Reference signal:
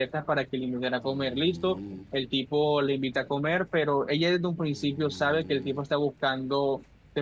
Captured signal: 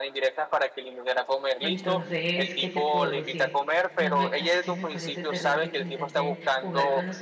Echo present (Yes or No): Yes